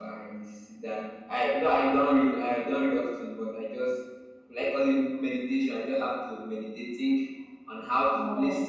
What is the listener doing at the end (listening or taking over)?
listening